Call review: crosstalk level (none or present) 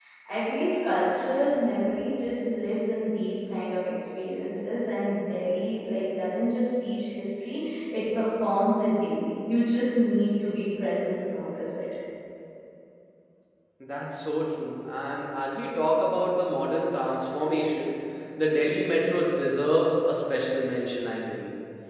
none